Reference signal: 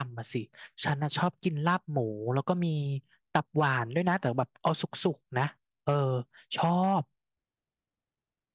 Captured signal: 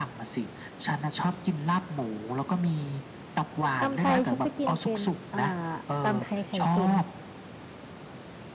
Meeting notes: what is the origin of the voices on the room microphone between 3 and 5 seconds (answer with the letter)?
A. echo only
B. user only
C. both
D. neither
C